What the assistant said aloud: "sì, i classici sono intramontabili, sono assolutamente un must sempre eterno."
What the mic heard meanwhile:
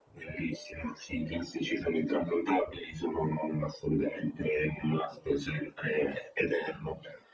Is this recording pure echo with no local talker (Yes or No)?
Yes